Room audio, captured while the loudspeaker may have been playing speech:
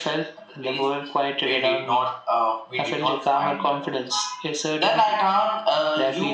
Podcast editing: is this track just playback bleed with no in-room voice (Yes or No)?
Yes